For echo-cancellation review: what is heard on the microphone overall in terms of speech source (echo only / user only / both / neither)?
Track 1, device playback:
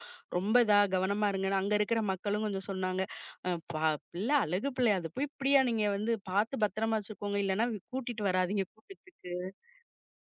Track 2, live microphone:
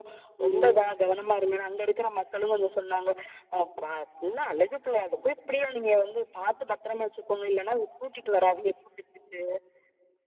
both